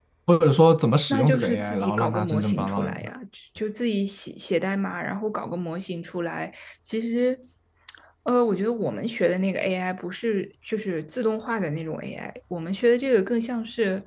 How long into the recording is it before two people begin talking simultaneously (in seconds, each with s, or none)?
1.1 s